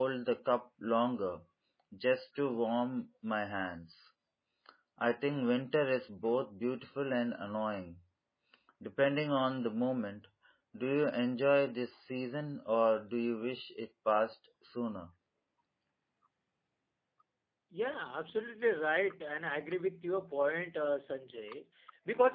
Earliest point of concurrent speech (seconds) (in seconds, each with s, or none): none